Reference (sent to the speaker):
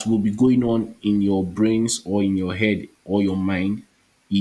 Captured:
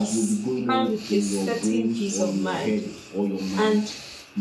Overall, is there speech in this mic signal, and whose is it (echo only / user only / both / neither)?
both